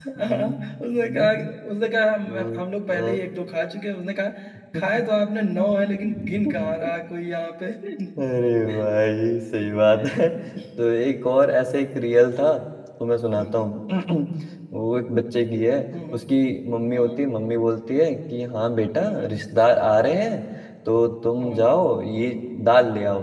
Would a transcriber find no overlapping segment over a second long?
No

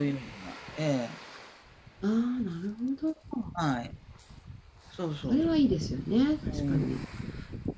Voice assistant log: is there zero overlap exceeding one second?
Yes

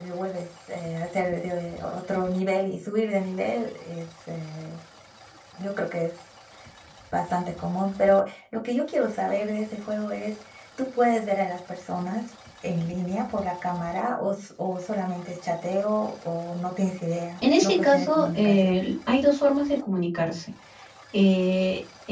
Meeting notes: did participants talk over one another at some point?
Yes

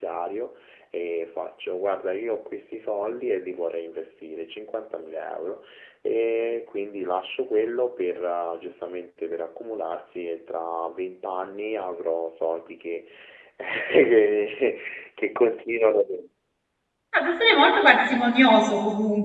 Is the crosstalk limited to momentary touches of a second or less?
Yes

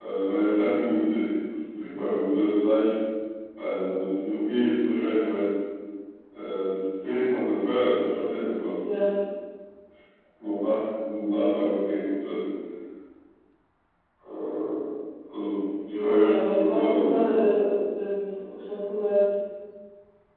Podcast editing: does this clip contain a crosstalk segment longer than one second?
Yes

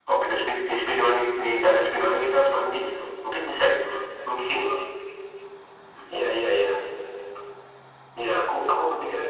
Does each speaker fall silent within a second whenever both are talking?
Yes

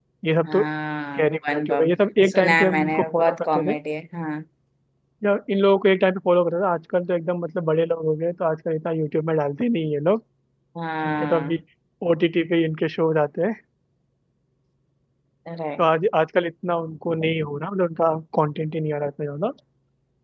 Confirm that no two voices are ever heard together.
No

